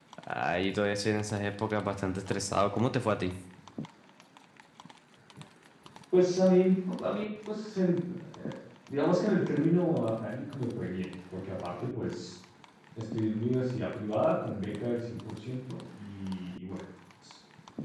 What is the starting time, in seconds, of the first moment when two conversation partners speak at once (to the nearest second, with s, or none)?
none